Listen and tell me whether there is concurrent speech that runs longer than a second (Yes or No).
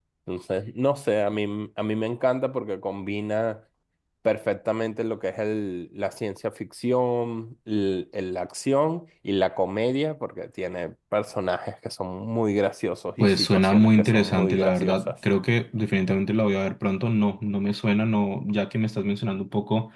Yes